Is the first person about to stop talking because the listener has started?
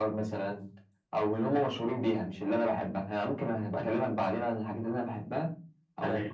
No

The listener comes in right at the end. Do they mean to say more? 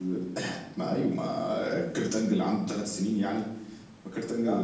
No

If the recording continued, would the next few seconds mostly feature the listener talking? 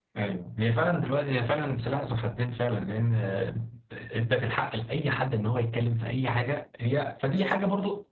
No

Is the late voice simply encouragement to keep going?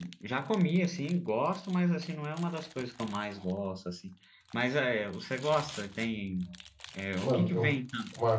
No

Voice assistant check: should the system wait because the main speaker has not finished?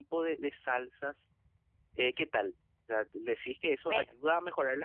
Yes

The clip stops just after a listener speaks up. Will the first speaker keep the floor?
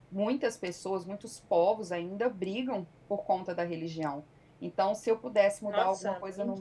Yes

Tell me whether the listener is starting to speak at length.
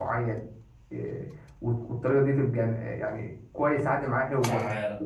No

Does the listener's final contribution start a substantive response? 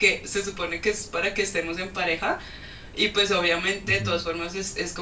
No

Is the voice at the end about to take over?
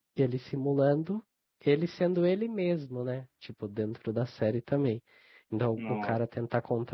No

